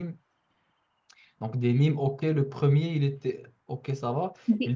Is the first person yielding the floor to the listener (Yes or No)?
No